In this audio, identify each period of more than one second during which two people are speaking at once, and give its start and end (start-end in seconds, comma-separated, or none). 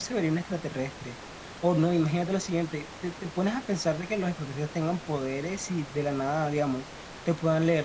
none